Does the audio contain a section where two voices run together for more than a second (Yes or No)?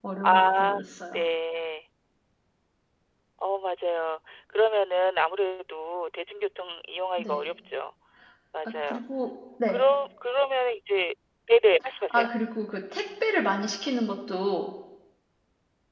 No